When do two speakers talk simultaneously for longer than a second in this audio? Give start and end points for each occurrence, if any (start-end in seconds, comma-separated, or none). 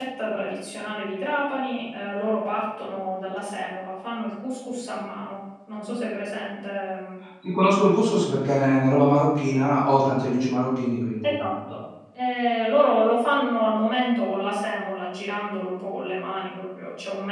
none